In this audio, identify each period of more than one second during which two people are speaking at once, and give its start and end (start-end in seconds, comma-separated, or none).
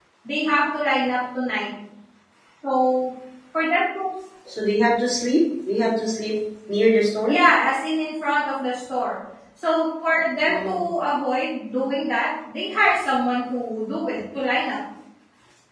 none